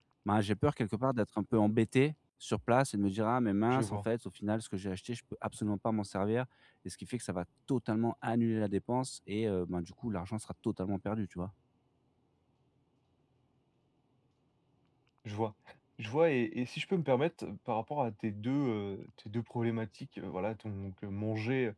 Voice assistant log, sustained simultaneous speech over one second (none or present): none